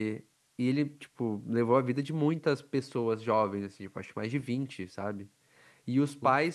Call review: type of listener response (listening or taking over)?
listening